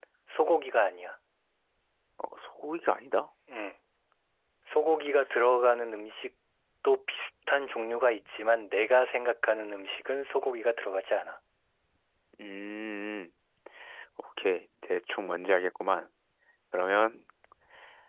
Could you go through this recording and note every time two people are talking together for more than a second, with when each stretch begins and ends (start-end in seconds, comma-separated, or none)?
none